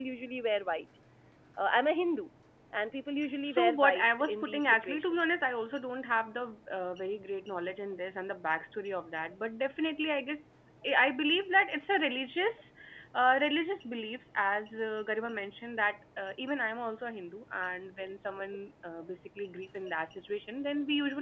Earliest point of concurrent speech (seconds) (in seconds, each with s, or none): 3.5 s